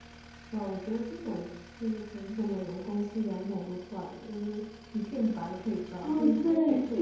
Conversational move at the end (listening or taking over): taking over